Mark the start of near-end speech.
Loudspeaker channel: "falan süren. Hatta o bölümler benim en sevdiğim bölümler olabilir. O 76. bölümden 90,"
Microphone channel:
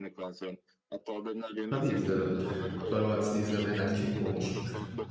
2 s

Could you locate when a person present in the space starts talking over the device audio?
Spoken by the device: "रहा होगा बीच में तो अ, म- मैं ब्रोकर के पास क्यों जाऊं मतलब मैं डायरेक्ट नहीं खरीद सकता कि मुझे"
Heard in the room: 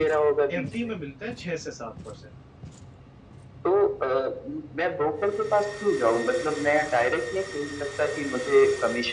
1 s

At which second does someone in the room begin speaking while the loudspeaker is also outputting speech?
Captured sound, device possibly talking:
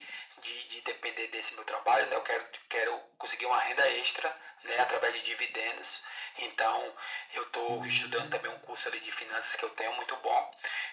8 s

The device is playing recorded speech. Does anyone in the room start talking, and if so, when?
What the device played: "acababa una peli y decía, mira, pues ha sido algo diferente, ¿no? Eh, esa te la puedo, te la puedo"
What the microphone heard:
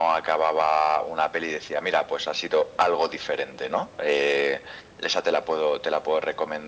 none

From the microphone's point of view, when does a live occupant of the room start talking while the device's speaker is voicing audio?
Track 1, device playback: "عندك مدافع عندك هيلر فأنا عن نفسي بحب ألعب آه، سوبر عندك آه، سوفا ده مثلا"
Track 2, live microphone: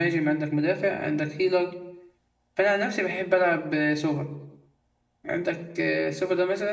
none

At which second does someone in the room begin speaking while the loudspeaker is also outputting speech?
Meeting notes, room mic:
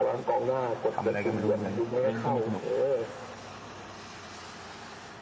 1 s

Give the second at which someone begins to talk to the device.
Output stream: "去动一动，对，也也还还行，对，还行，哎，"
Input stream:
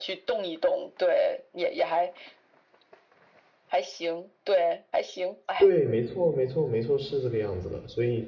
6 s

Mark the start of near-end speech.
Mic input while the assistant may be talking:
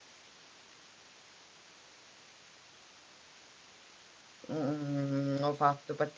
5 s

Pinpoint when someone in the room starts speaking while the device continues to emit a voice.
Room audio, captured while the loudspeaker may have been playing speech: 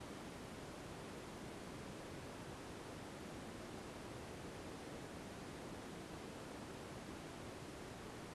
none

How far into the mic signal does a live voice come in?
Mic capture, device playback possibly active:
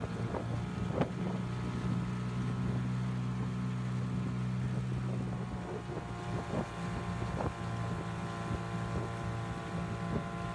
none

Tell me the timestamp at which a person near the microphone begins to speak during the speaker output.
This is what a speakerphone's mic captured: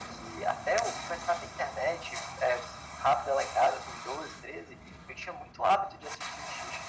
none

